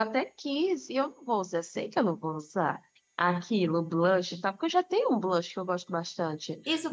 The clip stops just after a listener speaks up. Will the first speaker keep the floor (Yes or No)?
No